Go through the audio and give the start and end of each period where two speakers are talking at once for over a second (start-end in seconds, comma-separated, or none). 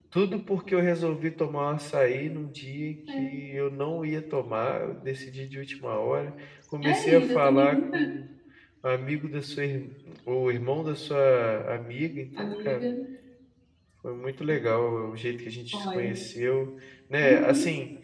6.8-8.1